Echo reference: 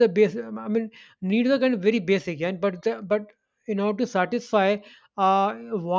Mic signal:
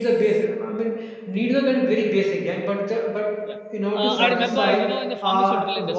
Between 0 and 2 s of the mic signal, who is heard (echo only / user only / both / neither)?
echo only